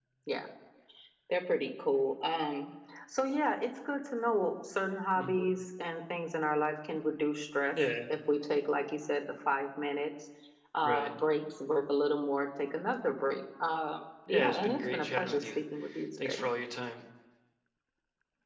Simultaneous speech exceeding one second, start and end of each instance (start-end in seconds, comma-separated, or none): 14.3-15.5